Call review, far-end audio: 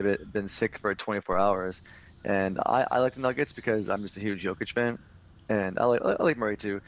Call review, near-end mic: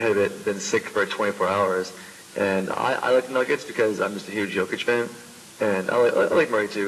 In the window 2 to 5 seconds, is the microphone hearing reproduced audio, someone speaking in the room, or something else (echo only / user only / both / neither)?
echo only